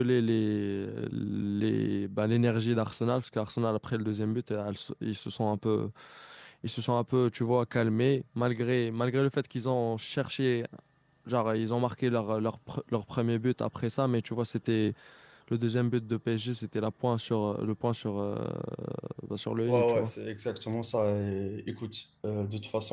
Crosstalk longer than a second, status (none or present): none